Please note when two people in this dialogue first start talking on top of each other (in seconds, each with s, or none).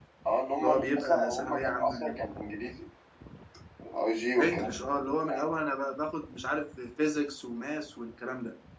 0.6 s